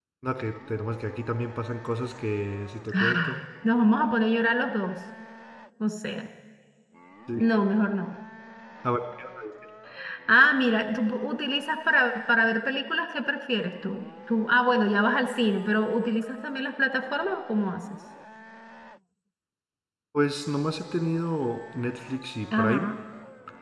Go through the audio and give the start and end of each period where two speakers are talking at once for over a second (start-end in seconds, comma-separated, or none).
none